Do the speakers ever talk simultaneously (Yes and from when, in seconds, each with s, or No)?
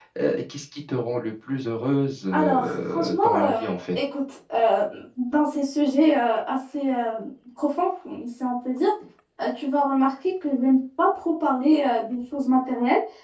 Yes, from 2.3 s